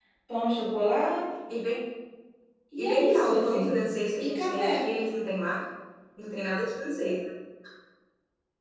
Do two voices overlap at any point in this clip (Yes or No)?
Yes